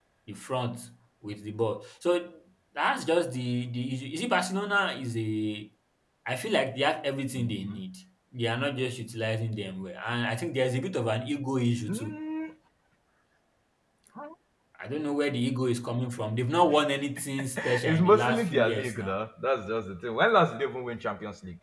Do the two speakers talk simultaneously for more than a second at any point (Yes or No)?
Yes